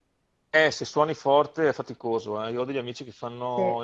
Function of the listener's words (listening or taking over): listening